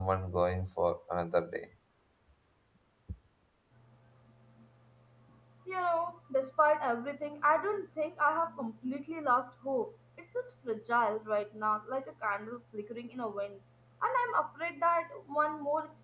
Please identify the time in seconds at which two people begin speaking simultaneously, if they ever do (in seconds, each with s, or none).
none